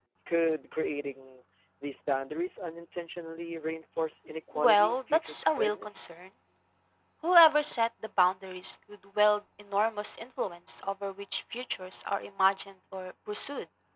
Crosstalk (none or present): present